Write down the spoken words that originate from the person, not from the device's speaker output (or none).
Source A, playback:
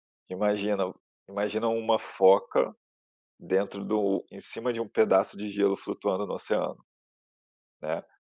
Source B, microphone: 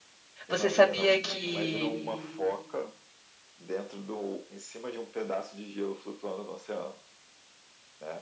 Você sabia que,